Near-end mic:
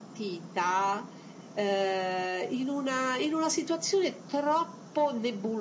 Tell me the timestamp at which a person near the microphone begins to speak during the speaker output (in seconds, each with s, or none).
none